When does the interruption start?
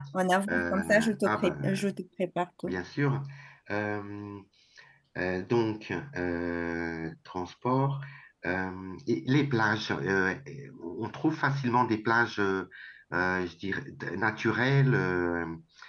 0.5 s

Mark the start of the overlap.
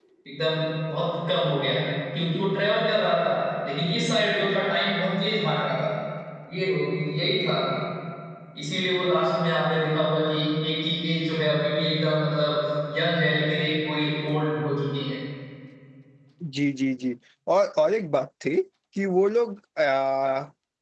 none

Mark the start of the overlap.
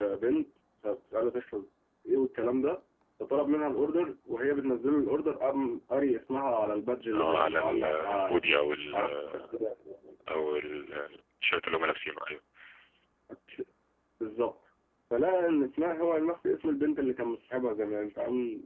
7.1 s

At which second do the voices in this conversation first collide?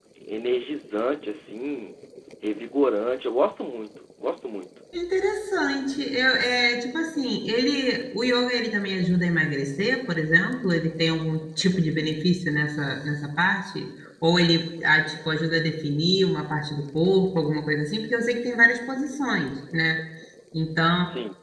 none

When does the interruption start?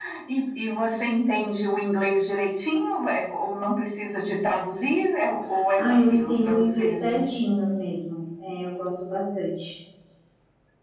5.5 s

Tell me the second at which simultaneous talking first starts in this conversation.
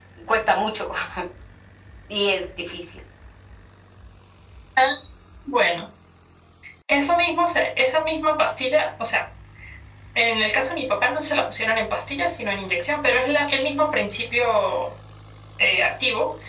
none

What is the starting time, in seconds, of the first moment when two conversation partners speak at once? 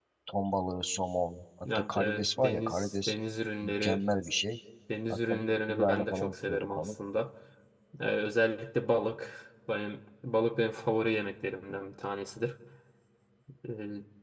1.9 s

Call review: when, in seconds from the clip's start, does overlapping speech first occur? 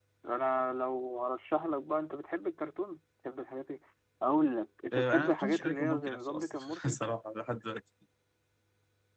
4.9 s

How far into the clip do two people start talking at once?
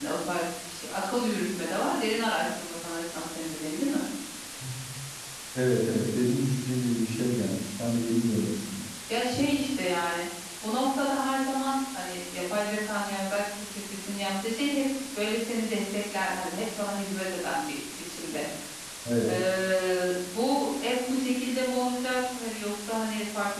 none

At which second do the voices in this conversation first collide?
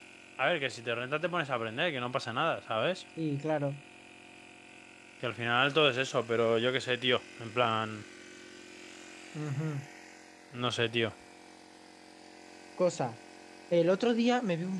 none

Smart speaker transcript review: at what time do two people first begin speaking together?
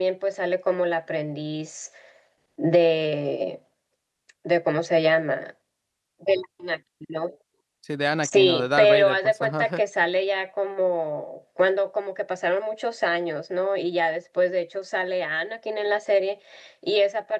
8.2 s

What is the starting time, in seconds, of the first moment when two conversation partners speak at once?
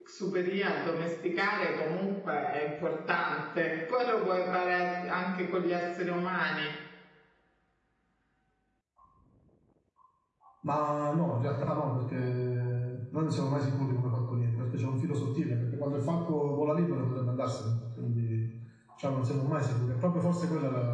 none

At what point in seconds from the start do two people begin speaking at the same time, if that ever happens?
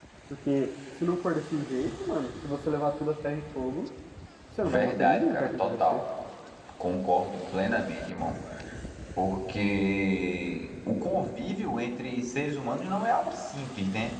4.6 s

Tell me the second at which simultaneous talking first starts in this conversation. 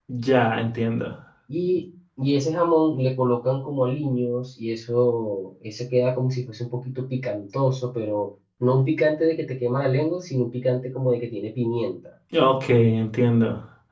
none

